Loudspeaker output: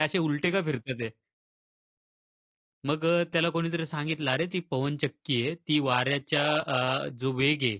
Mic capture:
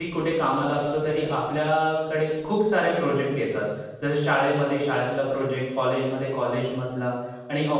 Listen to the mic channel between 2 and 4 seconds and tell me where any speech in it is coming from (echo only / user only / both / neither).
user only